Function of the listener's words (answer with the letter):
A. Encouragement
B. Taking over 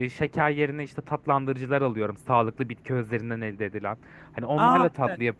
A